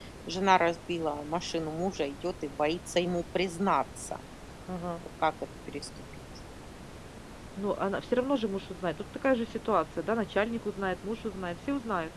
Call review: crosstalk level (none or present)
none